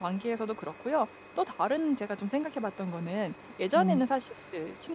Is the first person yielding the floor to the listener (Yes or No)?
No